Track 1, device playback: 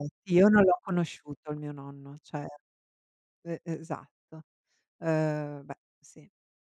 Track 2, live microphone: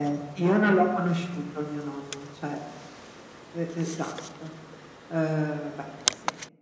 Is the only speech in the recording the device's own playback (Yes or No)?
Yes